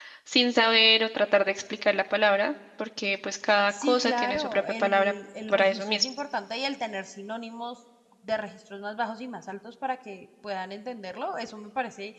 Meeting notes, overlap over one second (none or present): present